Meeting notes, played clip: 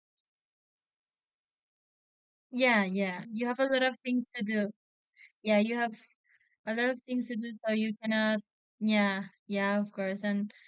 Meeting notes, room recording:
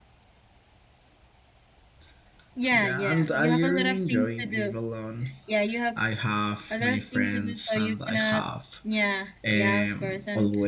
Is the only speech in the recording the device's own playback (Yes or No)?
No